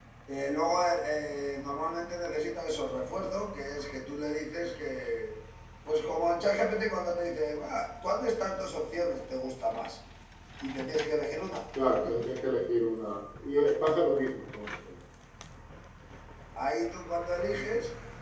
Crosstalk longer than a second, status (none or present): none